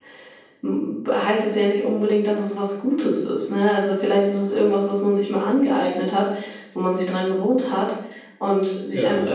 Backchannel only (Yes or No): Yes